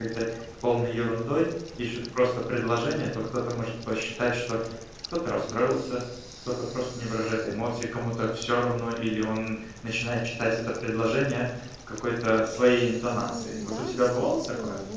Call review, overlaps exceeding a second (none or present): present